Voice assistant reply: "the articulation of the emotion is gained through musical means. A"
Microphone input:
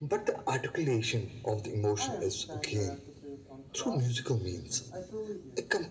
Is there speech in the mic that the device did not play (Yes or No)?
Yes